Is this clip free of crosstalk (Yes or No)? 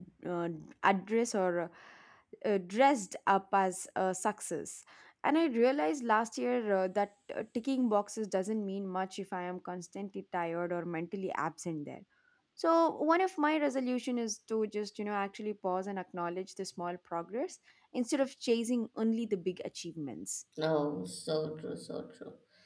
Yes